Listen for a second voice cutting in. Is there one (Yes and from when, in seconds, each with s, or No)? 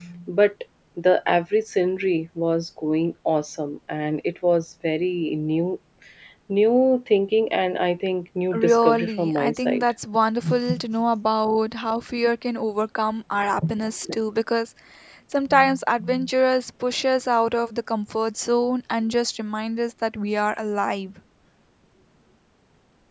Yes, from 8.5 s